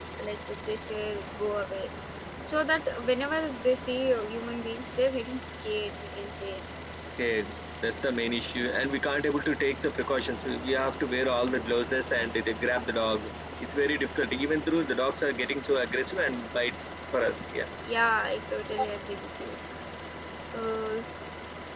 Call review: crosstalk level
none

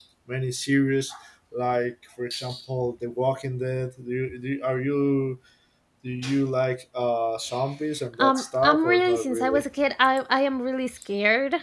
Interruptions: present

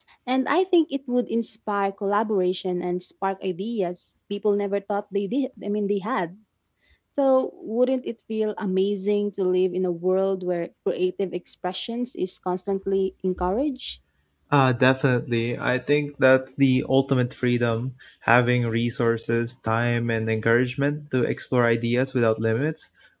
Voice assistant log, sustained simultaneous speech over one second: none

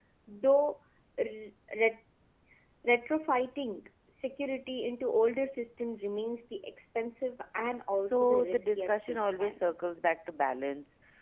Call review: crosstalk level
present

